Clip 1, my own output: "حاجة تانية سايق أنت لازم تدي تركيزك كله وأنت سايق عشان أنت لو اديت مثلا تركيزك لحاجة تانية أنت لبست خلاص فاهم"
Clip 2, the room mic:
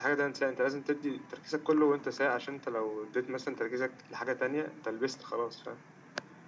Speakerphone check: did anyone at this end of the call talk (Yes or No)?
No